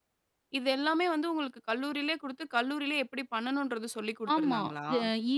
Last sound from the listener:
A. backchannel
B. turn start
B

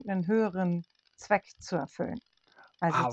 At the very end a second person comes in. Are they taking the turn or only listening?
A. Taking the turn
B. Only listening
B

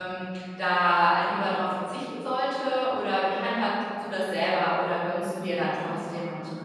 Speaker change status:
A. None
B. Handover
B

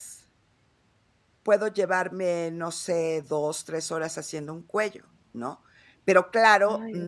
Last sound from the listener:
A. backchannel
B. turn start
A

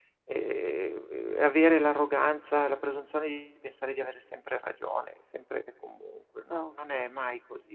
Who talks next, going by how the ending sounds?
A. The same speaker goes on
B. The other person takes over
A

